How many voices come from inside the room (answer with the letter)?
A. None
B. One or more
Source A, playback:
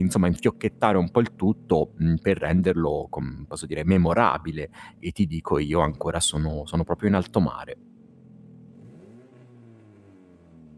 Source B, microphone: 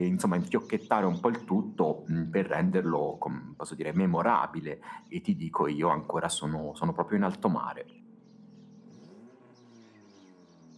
A